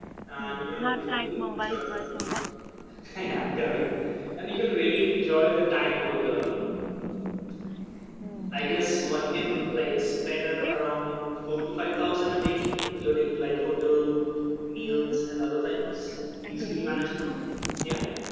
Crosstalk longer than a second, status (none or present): present